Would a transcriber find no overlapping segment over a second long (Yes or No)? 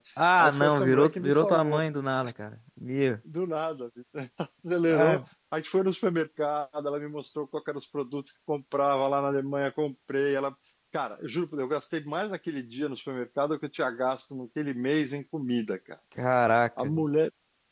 No